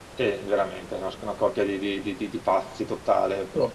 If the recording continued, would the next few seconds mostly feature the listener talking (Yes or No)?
No